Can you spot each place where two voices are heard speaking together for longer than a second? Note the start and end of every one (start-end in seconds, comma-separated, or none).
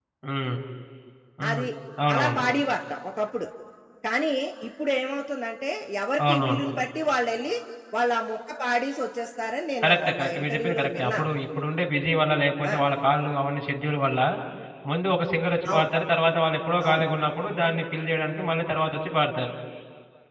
9.8-11.2